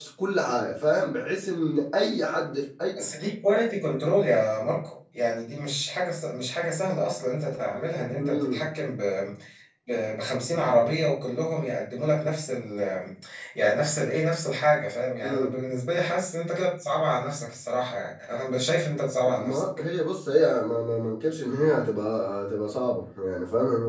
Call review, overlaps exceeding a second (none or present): none